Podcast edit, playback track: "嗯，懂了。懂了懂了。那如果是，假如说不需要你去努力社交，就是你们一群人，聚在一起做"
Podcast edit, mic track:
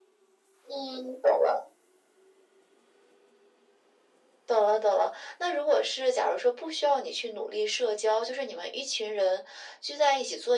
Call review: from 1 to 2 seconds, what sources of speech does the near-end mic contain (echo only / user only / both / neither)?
echo only